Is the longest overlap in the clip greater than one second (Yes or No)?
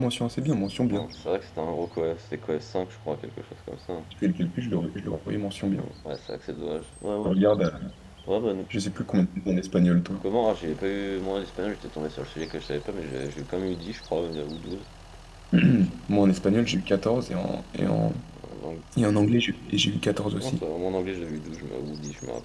No